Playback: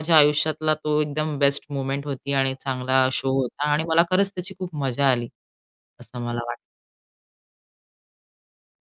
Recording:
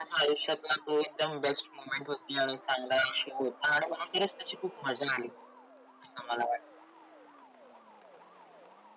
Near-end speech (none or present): none